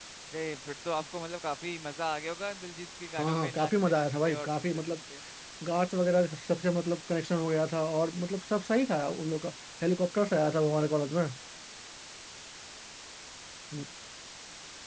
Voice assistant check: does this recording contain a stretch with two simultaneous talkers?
Yes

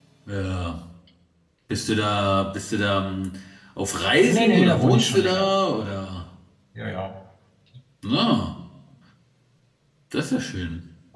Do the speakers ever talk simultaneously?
Yes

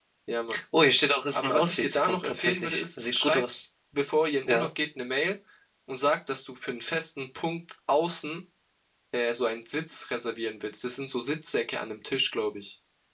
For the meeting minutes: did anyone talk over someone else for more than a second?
Yes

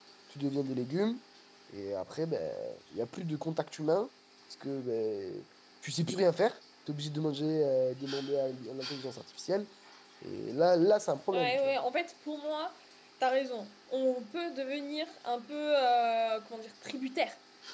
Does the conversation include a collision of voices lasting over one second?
No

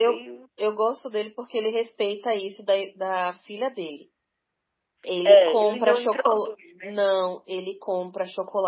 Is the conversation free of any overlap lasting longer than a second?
No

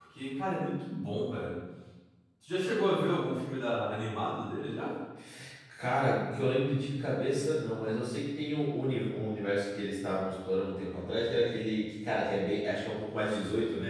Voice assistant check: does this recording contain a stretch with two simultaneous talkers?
No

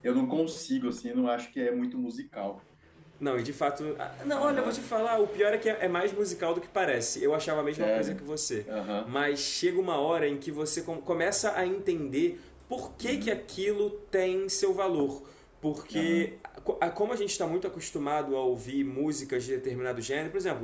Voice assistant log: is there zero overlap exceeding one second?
Yes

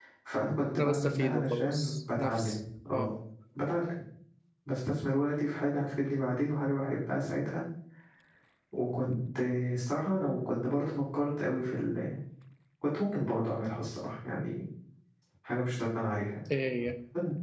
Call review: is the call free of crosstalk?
No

